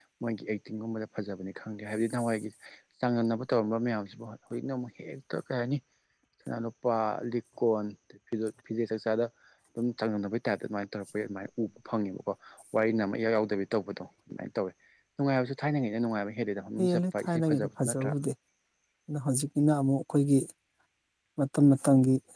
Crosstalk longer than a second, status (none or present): present